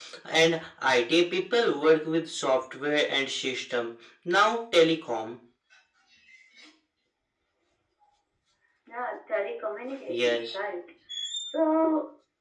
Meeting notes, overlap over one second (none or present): none